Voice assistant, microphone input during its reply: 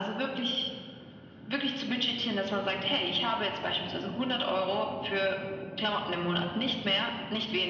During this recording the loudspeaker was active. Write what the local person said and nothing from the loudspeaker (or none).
none